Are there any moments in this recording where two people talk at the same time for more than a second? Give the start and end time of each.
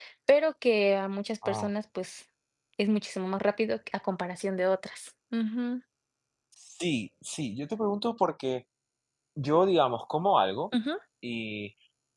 none

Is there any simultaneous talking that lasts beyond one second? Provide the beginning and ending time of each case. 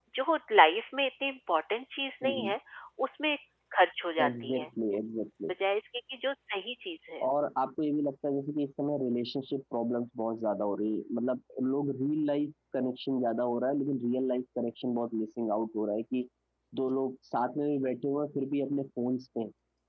none

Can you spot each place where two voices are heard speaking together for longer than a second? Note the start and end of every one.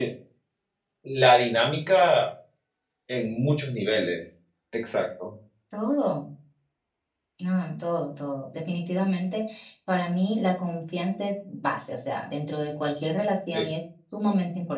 none

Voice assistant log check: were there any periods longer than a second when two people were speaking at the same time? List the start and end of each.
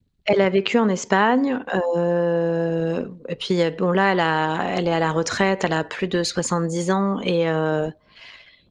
none

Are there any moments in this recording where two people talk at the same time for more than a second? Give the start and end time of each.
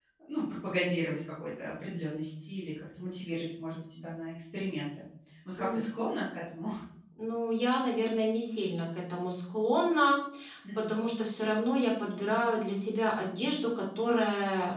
none

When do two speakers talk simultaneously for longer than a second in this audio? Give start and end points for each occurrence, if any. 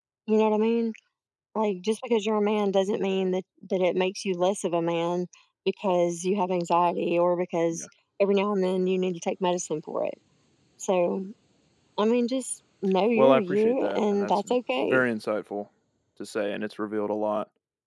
13.2-15.0

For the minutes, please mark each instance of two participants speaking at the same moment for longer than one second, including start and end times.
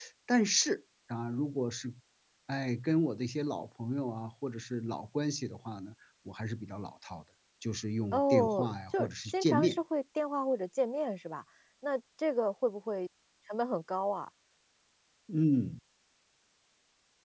8.1-9.8

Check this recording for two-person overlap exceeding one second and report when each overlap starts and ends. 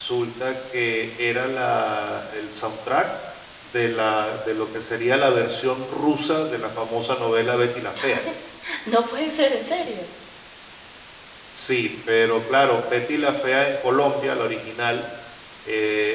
none

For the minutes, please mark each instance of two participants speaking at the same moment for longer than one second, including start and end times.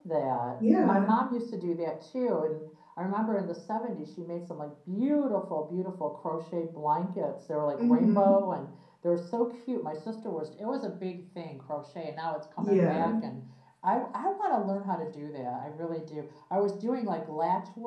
none

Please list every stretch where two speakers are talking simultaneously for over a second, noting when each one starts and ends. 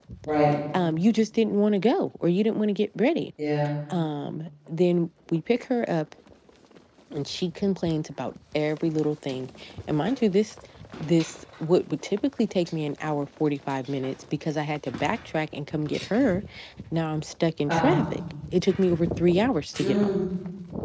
none

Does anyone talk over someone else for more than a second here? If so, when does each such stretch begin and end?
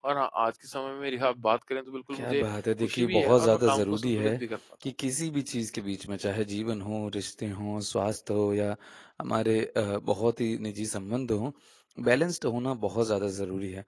2.8-4.4

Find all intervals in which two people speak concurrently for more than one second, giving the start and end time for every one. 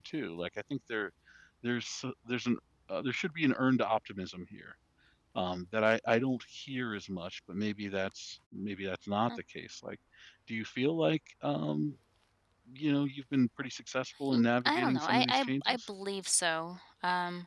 14.3-15.8

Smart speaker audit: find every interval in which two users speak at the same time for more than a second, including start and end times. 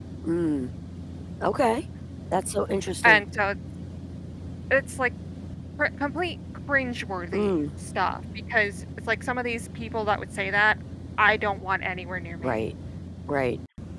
none

